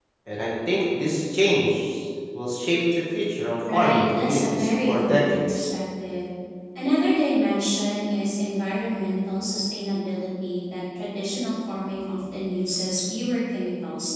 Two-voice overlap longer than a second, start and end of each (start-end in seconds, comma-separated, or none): 3.7-5.6